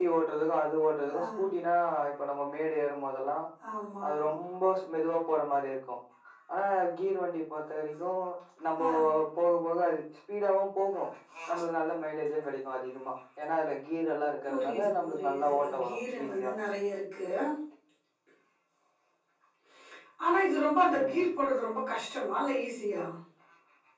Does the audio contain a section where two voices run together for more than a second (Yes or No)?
Yes